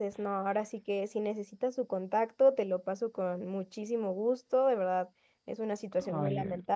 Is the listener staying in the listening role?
Yes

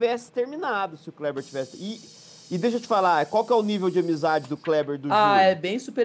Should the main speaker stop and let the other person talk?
Yes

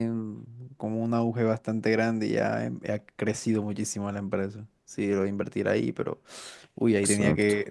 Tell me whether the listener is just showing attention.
Yes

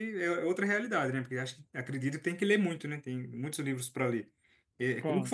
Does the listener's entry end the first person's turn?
No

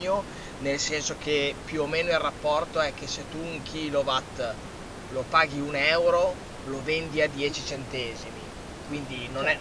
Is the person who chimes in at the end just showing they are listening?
Yes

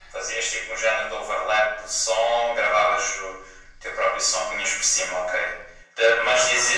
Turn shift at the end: No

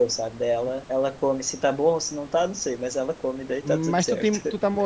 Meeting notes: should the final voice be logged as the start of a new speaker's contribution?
Yes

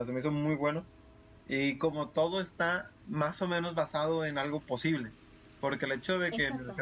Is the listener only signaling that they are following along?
Yes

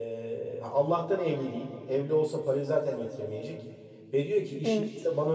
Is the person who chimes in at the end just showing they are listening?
Yes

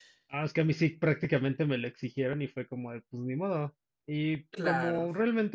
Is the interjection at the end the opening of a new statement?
No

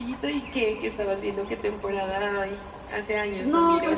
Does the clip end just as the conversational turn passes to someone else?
Yes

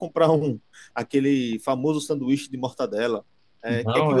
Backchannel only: Yes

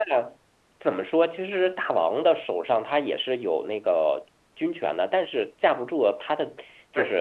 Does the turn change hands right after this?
Yes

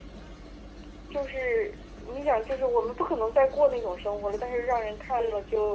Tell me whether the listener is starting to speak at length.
No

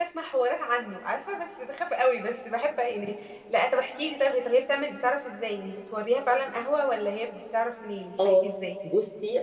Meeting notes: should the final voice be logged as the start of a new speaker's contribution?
Yes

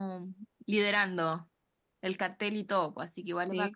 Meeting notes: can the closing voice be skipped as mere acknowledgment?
No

